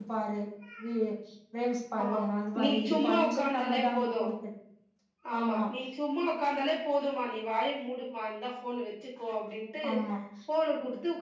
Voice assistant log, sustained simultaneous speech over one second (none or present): present